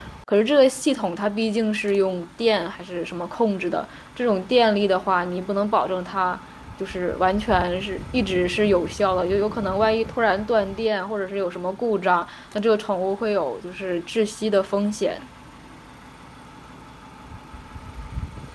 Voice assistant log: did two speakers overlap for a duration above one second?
No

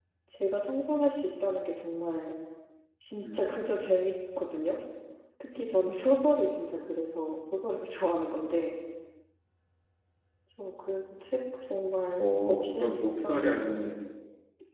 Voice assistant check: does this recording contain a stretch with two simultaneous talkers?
Yes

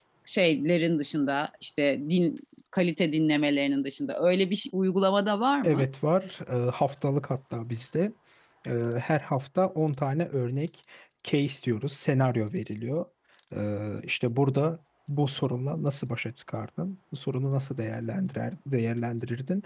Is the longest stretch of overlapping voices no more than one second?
Yes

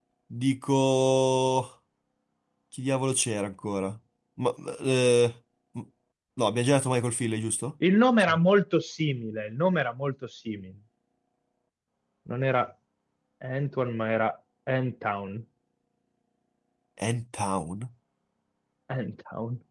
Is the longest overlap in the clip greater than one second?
No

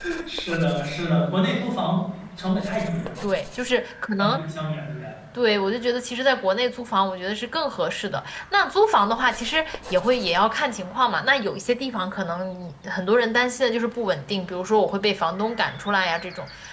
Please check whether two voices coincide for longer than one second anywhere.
No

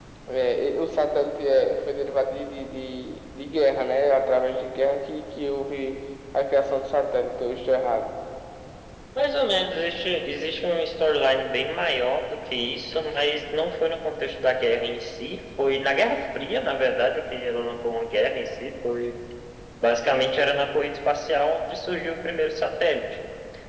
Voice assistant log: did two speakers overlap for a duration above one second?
No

